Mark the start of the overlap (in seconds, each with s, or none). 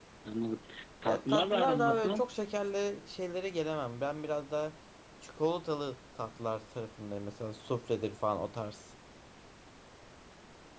1.0 s